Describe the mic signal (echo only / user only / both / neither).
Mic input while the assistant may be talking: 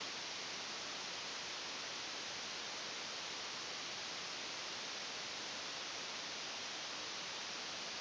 neither